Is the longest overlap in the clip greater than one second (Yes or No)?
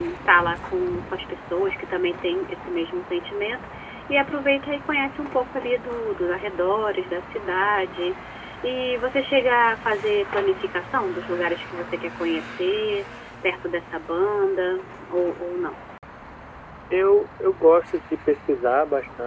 No